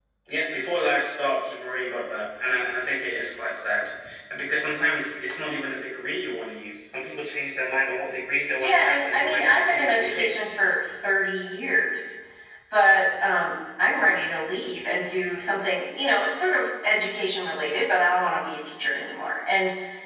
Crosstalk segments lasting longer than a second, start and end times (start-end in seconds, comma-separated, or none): 8.6-10.3